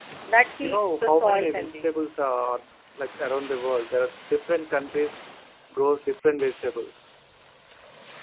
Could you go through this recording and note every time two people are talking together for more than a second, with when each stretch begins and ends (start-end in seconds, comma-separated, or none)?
0.6-1.9